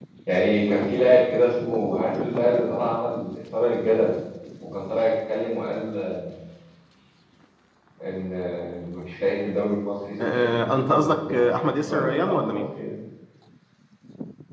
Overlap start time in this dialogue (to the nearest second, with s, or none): 10 s